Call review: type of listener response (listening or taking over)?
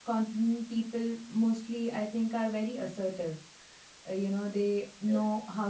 listening